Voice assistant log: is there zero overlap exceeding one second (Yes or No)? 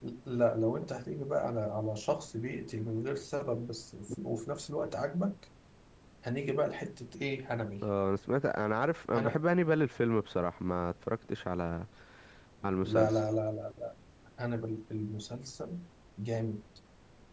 Yes